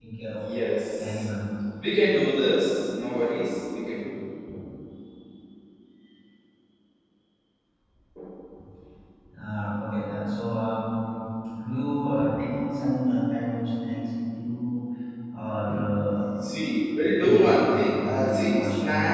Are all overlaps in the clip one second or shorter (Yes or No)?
No